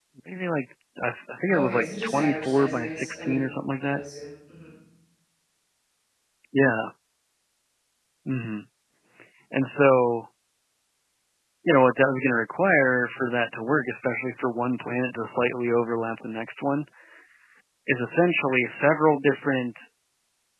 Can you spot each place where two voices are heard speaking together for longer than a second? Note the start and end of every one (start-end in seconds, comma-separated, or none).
1.5-3.4